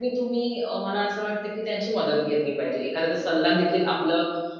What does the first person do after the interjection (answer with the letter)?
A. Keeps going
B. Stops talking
A